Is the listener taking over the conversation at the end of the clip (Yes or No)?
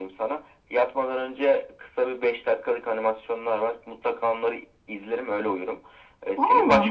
No